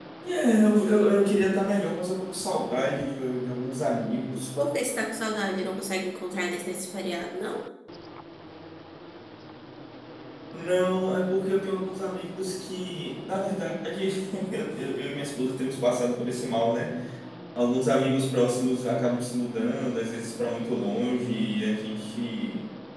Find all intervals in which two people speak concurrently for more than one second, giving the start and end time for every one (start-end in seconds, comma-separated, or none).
none